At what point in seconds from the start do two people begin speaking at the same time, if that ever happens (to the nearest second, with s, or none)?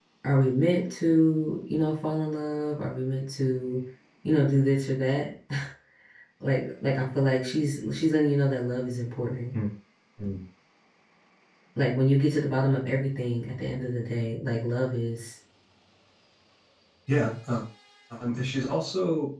none